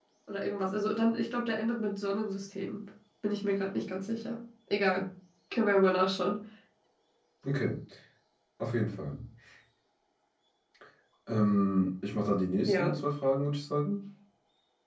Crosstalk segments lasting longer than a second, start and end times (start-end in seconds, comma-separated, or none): none